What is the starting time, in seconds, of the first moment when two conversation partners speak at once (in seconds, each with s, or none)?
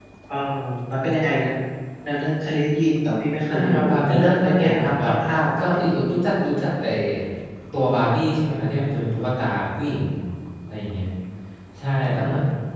3.5 s